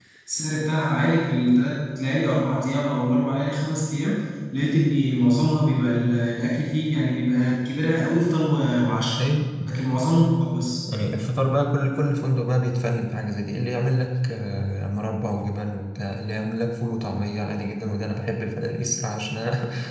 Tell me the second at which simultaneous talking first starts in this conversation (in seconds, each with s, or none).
none